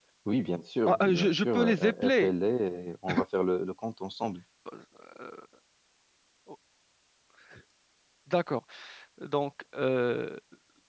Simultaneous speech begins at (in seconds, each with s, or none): 0.9 s